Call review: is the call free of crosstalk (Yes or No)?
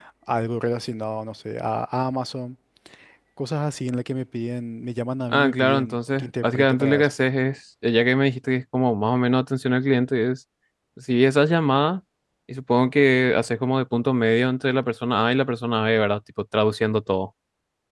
No